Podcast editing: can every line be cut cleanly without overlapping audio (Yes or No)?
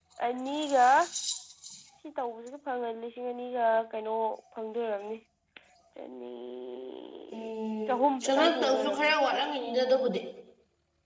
No